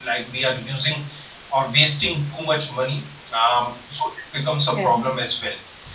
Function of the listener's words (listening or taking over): listening